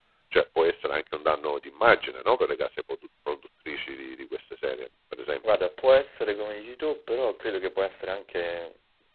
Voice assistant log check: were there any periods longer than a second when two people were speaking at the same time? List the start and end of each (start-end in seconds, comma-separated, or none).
none